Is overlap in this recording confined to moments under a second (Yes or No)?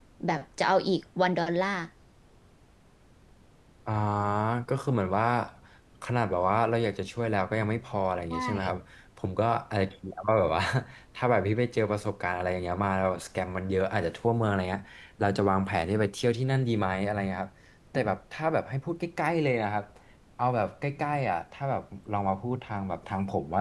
Yes